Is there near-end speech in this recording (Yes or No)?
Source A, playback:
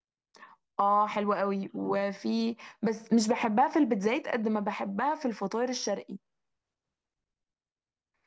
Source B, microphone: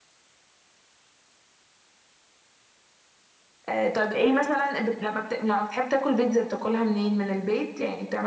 Yes